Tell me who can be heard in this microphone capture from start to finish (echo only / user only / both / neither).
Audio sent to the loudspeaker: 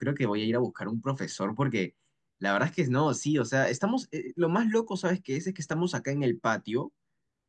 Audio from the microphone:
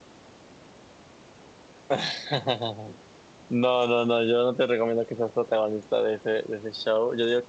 user only